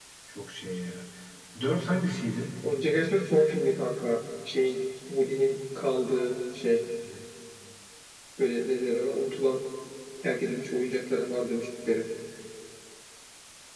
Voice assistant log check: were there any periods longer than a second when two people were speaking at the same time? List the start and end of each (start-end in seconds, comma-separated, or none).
none